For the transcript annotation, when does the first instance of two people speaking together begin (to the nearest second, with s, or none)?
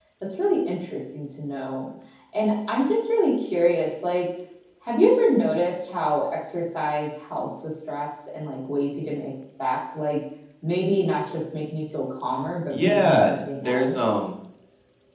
13 s